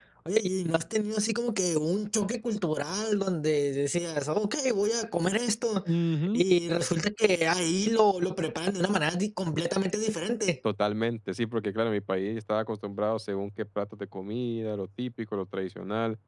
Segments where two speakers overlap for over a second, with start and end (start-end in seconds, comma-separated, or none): none